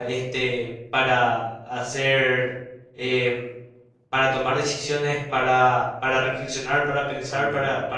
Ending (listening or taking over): listening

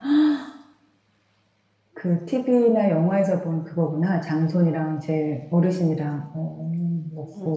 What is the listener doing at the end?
taking over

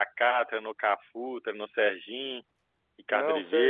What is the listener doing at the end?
taking over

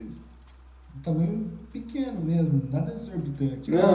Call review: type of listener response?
taking over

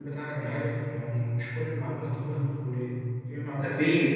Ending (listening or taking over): taking over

